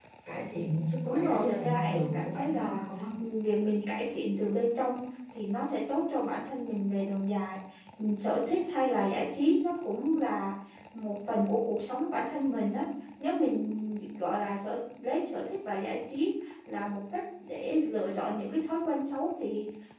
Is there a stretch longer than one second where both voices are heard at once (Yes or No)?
Yes